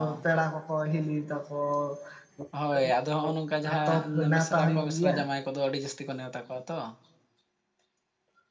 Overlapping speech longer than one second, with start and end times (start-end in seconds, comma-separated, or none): 3.7-5.2